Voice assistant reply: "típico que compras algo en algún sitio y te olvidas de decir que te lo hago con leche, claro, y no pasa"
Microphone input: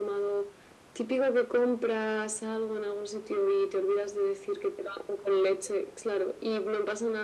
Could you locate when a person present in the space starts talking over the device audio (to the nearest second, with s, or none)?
none